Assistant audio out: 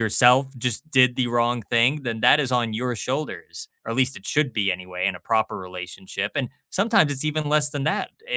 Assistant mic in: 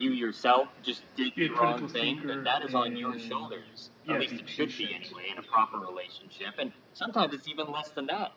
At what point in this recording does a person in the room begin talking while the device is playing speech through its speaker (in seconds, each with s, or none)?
1.3 s